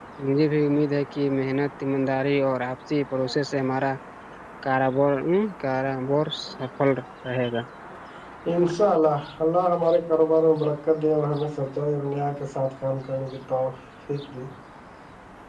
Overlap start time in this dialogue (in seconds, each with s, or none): none